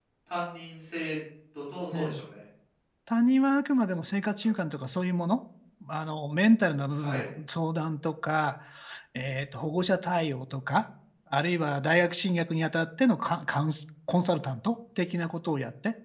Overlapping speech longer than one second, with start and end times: none

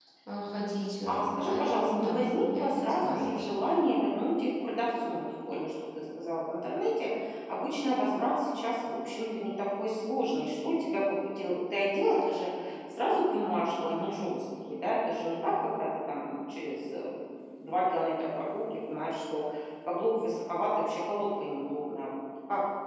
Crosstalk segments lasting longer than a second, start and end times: 1.1-3.5

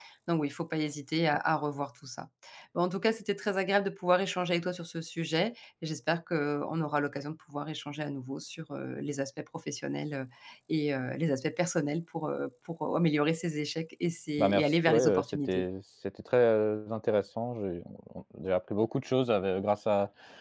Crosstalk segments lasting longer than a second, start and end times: 14.4-15.7

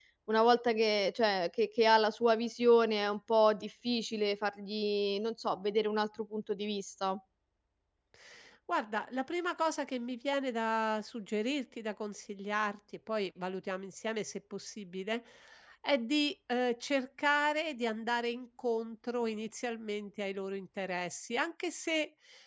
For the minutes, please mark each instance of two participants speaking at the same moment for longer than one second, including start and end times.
none

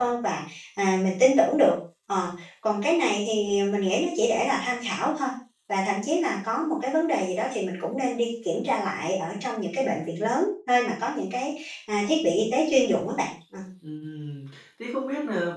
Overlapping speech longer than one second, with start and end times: none

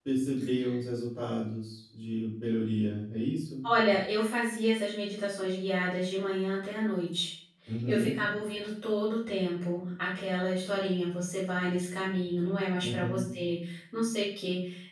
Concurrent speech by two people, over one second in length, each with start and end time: none

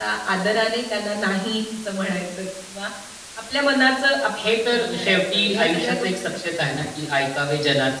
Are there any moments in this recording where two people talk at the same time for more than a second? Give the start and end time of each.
4.4-6.8

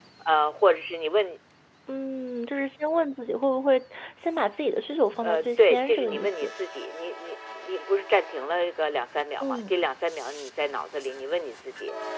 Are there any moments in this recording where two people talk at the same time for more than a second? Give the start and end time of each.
5.2-6.5

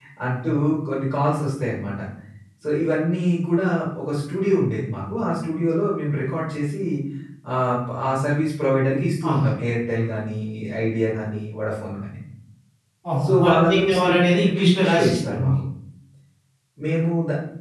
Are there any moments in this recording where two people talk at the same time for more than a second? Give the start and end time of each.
13.2-15.6

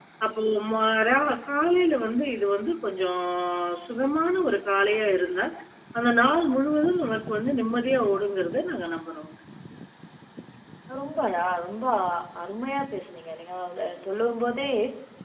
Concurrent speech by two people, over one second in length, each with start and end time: none

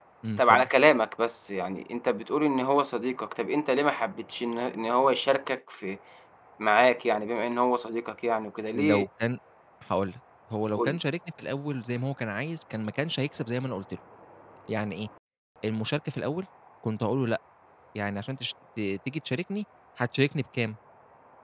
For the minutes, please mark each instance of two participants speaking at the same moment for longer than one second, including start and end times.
none

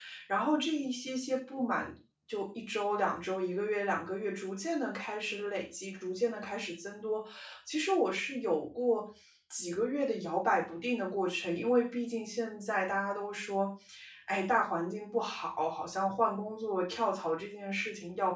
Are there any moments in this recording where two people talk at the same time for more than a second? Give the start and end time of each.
none

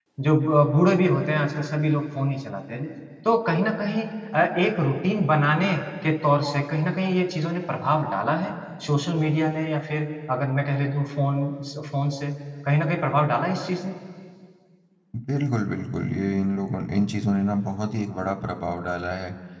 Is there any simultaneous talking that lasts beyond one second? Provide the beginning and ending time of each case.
none

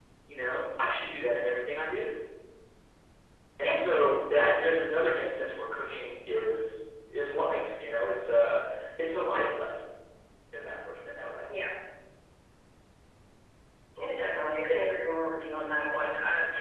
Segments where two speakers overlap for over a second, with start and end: none

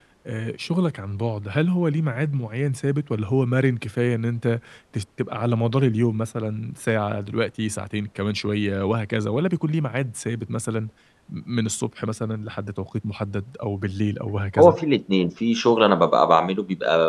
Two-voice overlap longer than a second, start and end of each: none

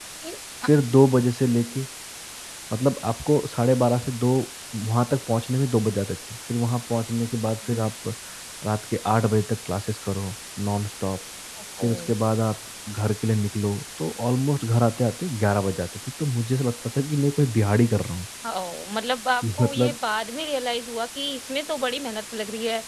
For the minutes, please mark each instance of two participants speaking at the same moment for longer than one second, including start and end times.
none

